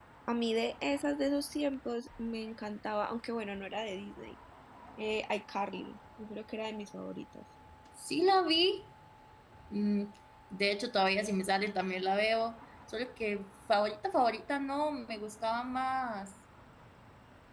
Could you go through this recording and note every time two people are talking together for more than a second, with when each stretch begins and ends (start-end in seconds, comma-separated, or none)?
none